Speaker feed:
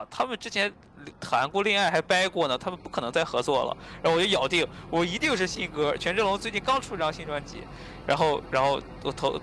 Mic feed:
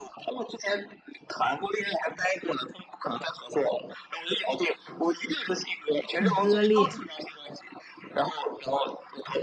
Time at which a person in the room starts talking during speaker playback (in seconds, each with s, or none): 6.1 s